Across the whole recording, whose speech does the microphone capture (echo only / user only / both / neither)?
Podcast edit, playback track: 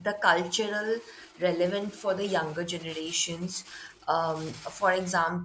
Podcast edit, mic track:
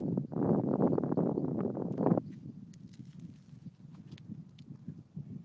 neither